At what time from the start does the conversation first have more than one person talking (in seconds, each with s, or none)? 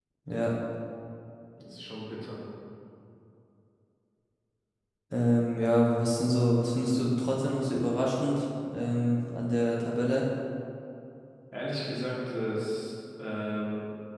none